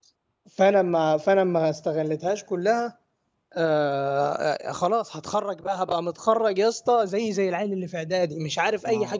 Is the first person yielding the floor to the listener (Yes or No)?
Yes